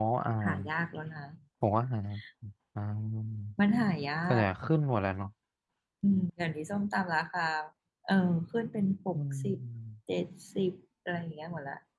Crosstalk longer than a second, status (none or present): none